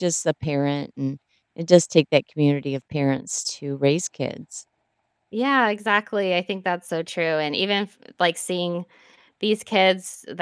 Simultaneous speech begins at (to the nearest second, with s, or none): none